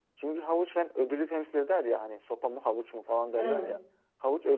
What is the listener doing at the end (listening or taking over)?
listening